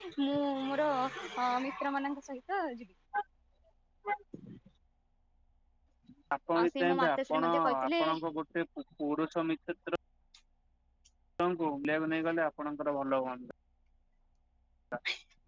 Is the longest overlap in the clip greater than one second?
Yes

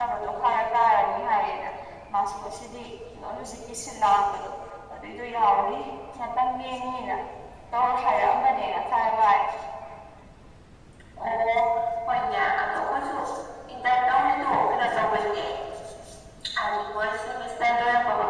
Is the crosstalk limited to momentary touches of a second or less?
Yes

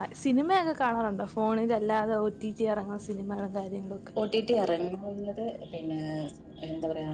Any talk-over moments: No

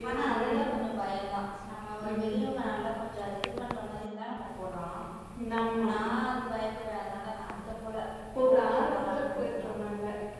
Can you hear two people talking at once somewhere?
Yes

